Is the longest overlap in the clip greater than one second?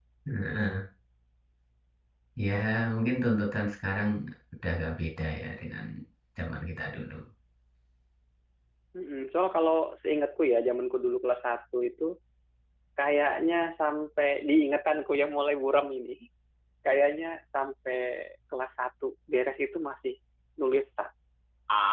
No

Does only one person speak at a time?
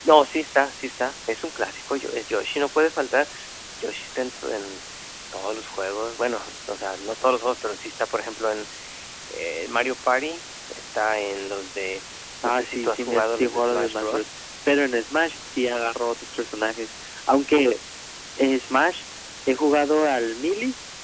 No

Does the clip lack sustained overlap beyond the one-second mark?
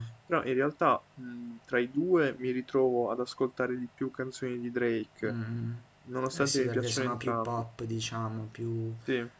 No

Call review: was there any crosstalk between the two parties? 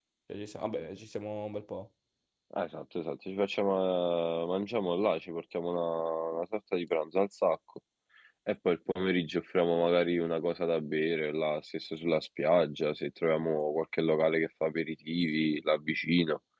No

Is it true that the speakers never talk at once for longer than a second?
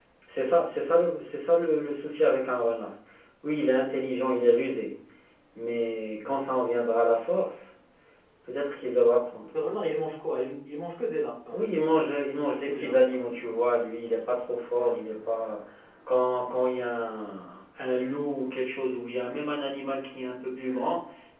No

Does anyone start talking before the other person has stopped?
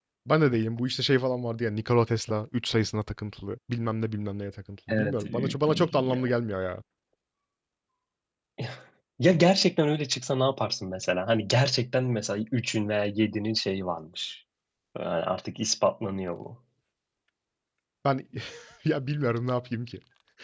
Yes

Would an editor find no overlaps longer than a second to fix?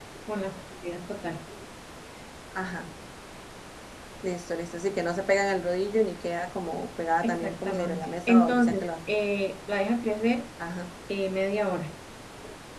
No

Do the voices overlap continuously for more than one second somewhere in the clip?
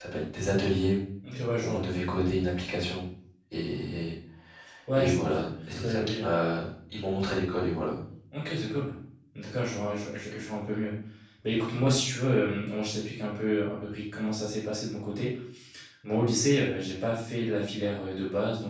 No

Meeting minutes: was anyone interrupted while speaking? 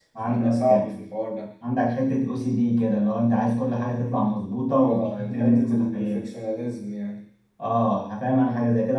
Yes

